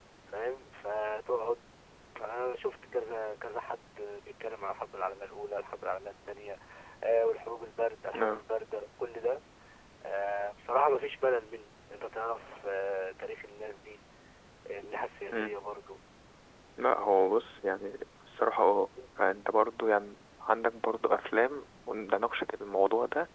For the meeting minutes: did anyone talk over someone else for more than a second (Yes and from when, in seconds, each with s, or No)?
No